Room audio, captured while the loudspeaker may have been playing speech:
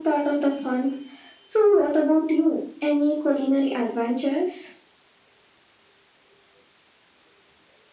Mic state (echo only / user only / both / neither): echo only